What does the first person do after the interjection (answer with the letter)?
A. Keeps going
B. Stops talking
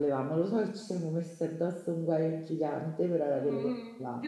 B